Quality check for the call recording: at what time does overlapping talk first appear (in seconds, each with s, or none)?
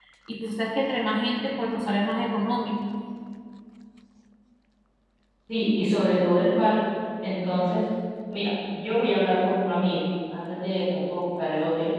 none